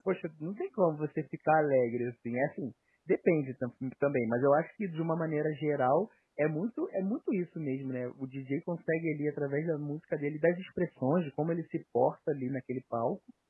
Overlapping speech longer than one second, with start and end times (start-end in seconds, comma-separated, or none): none